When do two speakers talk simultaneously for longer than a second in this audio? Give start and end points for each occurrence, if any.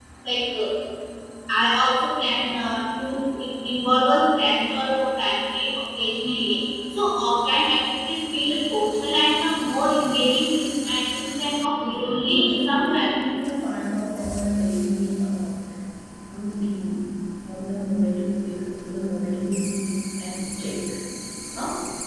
11.8-13.2

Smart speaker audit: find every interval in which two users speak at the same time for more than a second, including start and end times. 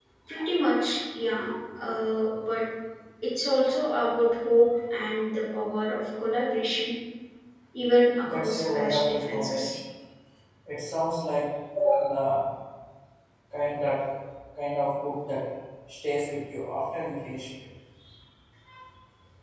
8.2-9.8

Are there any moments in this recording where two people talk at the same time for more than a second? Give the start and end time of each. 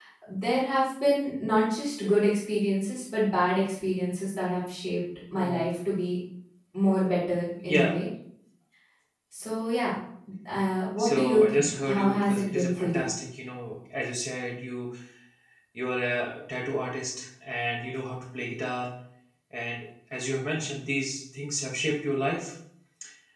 11.0-13.1

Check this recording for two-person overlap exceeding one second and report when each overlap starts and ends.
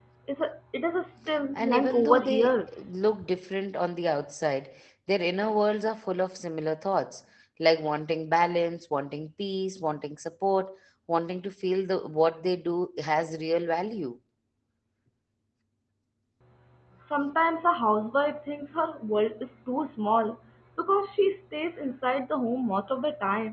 1.6-2.8

